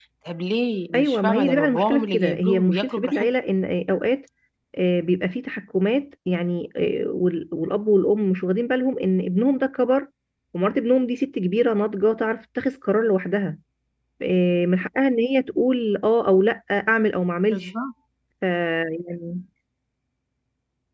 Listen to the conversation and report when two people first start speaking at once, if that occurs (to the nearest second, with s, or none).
1 s